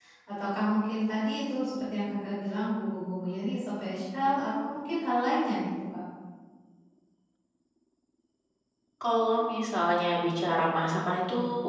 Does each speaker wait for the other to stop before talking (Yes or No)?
Yes